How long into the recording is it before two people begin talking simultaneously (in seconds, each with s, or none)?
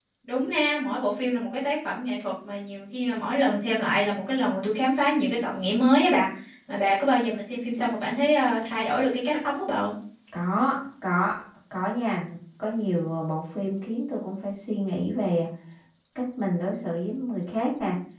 none